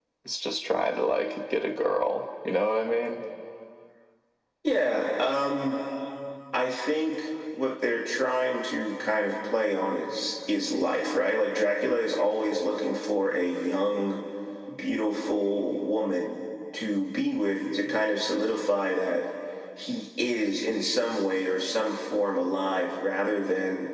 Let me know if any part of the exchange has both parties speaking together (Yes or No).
No